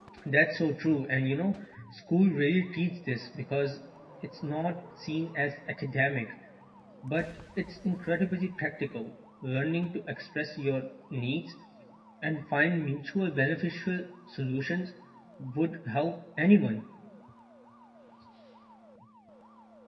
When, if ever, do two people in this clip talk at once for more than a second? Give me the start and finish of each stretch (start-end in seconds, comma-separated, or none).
none